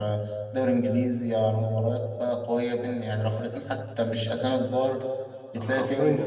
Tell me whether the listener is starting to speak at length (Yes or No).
Yes